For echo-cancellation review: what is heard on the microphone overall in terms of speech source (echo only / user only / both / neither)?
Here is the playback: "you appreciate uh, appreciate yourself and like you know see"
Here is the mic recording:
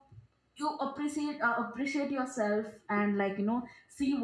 echo only